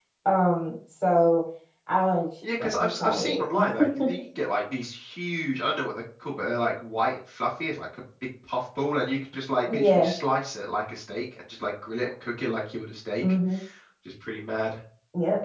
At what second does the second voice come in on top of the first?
3 s

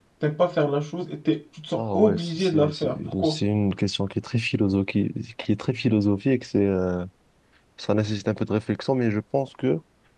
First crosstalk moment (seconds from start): 2 s

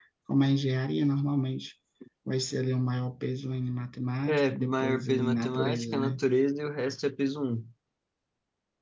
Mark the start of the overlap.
4 s

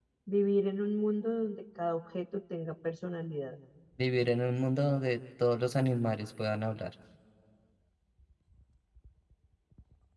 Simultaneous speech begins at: none

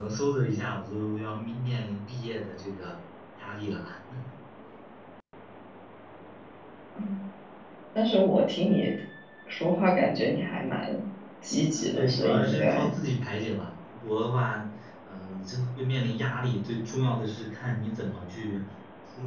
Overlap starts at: 12 s

